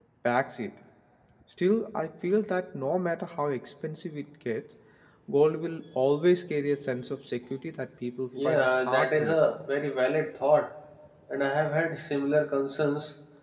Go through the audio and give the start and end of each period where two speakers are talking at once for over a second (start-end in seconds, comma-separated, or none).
8.4-9.7